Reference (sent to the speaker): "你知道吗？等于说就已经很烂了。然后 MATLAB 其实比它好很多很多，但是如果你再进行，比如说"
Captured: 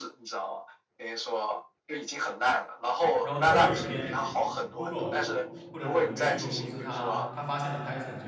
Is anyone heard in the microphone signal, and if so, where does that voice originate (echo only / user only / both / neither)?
both